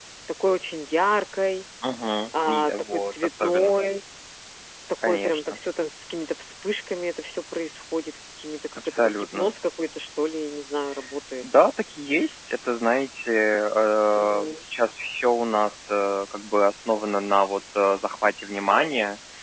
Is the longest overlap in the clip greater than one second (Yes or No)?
Yes